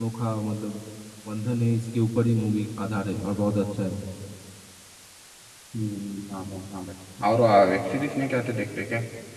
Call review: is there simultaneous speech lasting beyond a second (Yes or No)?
No